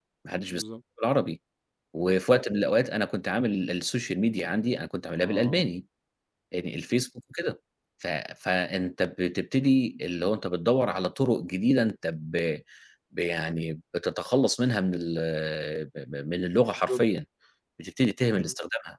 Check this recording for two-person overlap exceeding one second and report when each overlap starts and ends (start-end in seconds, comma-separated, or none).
none